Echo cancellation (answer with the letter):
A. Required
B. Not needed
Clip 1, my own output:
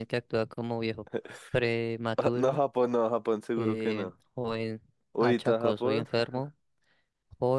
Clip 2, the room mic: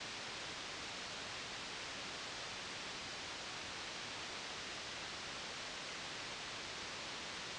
B